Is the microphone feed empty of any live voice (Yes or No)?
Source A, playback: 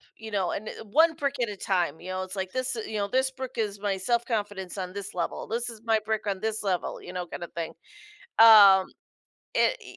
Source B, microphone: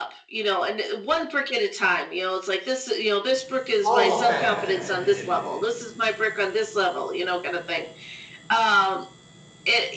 No